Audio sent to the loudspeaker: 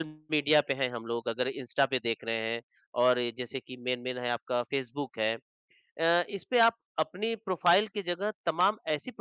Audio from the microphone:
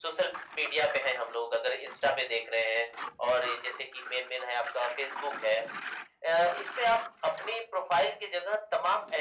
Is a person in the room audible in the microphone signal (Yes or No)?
No